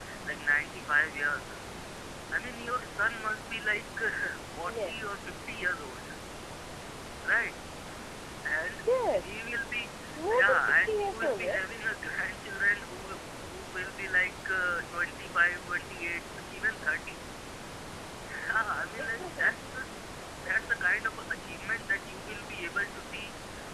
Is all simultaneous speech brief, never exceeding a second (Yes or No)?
No